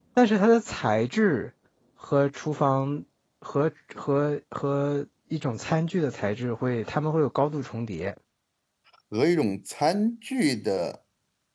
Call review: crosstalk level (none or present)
none